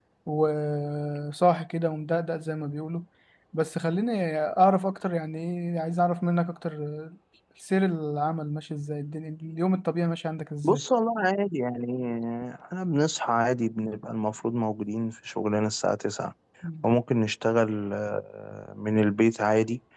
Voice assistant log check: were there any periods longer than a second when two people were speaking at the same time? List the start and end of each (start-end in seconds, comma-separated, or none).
none